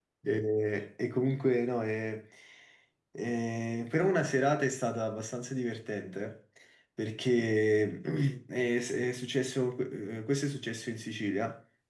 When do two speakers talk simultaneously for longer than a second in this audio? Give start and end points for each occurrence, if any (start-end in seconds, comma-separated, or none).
none